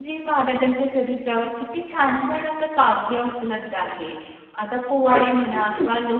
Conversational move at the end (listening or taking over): listening